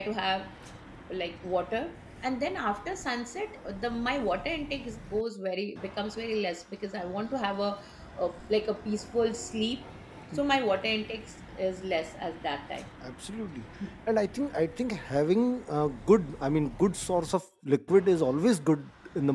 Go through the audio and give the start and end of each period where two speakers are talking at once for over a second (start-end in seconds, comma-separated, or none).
none